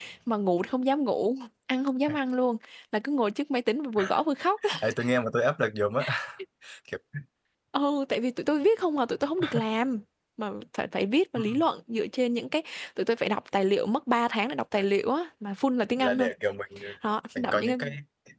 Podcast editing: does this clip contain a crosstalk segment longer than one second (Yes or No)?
No